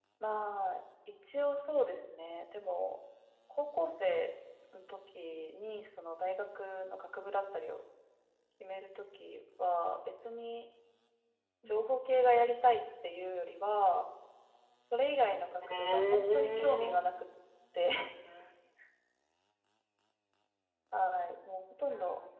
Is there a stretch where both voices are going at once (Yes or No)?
Yes